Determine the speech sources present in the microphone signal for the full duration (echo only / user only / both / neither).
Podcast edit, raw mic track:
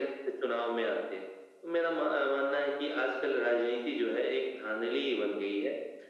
echo only